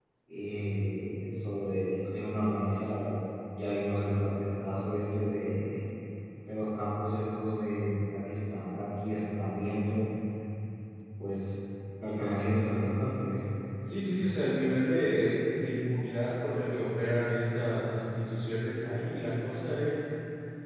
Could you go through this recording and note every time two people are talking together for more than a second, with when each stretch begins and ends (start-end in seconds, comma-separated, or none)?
none